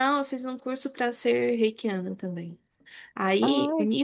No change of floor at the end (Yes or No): Yes